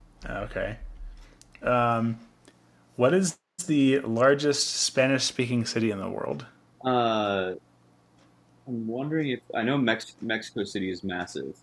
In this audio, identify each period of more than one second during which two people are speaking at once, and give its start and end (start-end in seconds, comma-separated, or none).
none